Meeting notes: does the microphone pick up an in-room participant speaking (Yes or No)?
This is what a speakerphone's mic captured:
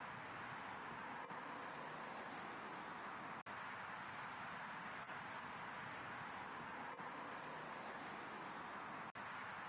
No